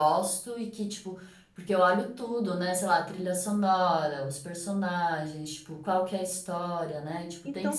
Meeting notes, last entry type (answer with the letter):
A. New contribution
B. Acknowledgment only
A